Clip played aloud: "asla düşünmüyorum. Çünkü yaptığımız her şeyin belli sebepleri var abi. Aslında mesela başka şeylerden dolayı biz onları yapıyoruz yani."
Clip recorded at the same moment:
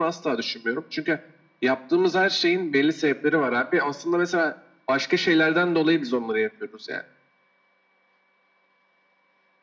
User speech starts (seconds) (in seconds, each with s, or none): none